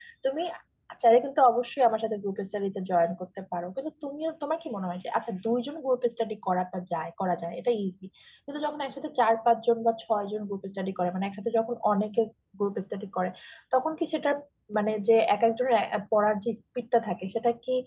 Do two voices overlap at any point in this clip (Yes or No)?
No